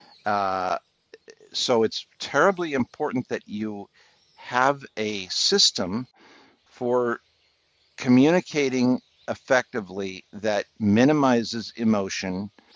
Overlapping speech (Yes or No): No